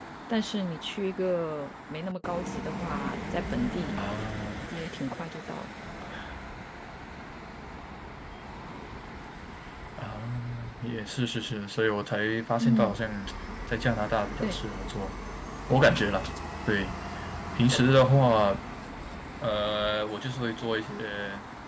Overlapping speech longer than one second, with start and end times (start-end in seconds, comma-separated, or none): none